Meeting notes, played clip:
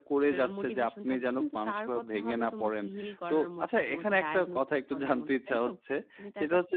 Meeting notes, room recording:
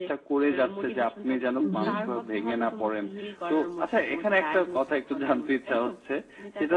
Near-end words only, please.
উহ।

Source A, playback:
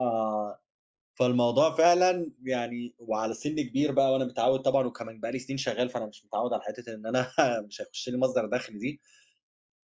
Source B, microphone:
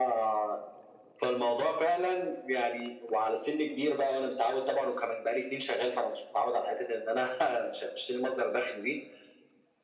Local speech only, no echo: none

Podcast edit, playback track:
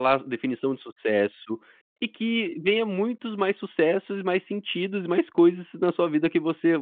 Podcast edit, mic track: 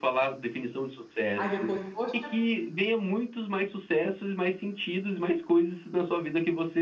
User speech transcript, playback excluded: Aí depois, "Poxa,

